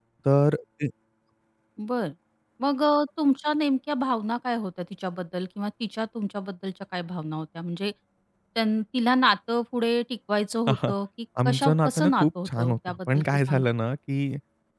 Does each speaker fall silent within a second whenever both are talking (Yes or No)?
No